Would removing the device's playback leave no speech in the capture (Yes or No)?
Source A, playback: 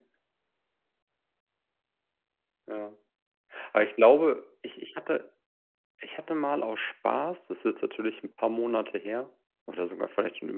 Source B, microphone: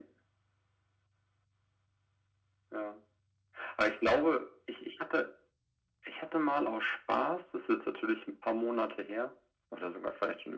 Yes